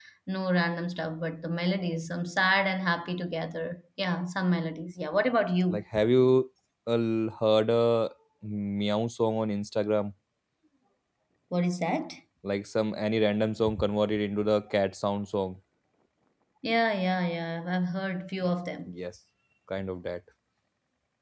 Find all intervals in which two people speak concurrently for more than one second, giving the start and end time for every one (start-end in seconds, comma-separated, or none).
none